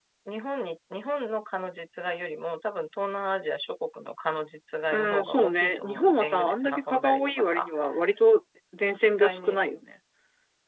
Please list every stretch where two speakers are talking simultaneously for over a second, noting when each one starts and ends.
4.9-7.7

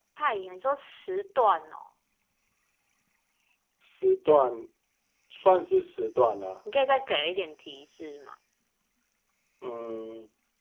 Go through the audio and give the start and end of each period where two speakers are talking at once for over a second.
none

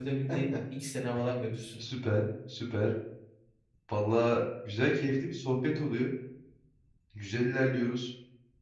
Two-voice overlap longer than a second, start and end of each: none

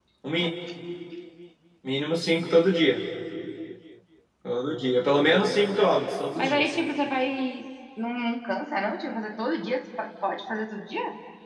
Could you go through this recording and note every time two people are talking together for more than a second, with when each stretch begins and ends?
none

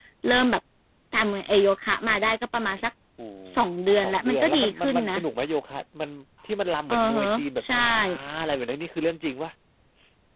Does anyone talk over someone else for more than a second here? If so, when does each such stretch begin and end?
3.9-5.2

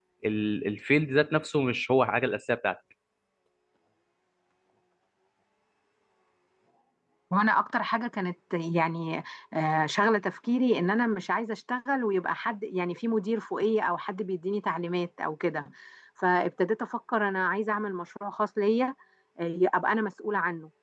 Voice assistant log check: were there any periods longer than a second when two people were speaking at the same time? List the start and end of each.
none

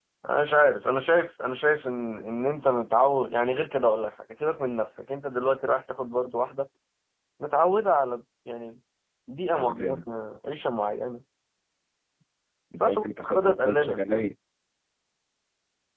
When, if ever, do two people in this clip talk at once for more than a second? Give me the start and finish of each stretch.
12.8-14.2

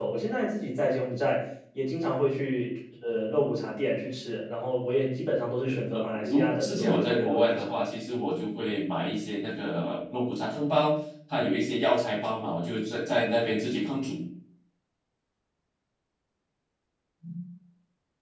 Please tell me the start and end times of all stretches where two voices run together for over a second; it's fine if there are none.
5.7-7.7

